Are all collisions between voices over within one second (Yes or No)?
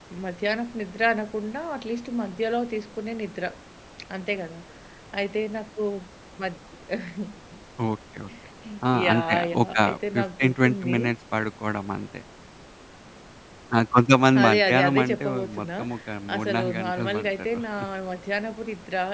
No